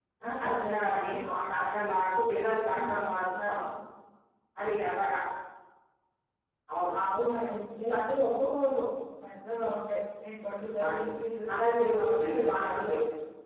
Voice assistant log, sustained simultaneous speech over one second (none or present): present